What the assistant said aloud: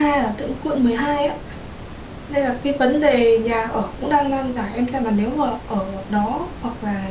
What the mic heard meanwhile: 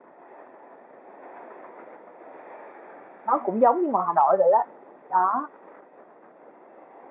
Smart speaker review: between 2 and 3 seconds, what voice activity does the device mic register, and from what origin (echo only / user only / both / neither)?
neither